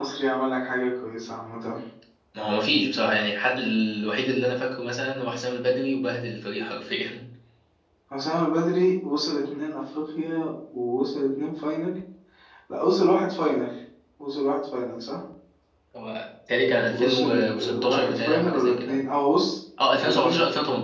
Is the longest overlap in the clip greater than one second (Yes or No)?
Yes